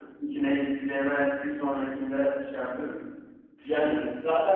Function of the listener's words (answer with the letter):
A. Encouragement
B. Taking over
B